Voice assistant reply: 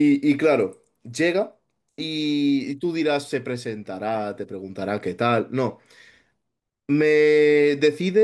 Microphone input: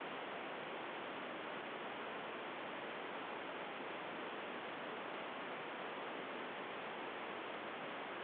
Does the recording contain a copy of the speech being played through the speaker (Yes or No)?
No